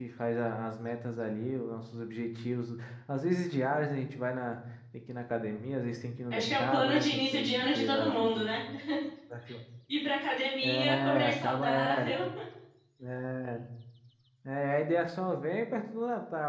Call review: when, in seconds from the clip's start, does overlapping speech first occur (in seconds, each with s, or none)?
6.3 s